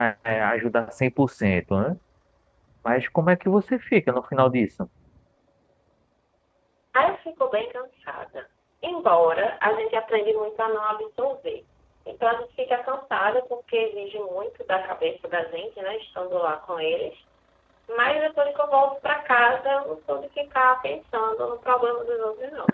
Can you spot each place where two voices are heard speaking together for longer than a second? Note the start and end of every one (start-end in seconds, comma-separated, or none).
none